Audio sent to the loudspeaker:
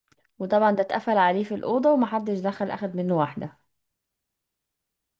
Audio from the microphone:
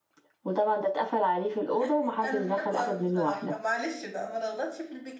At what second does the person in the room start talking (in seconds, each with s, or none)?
1.7 s